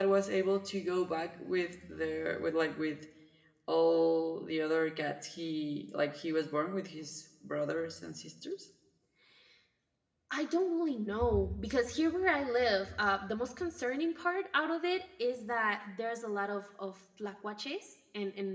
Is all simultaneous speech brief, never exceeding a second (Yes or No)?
Yes